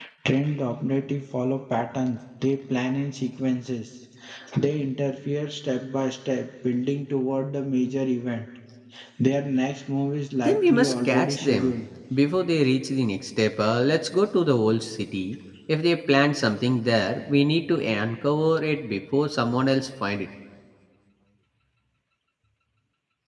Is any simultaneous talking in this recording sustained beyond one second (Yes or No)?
Yes